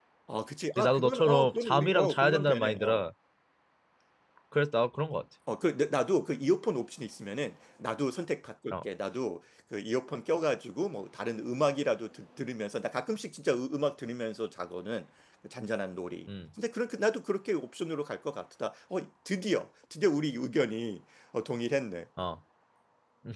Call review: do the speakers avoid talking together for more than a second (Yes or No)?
No